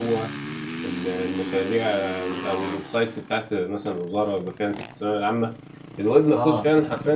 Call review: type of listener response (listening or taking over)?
listening